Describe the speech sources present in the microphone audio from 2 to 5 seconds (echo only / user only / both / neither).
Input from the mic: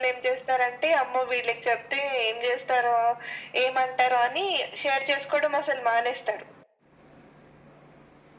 echo only